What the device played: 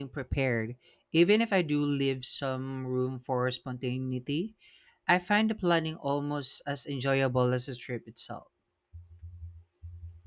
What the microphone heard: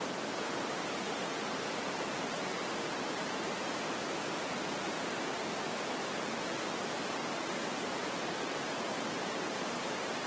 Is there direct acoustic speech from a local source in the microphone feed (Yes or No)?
No